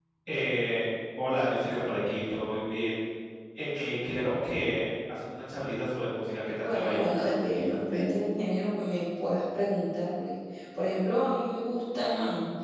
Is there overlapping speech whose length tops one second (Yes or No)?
Yes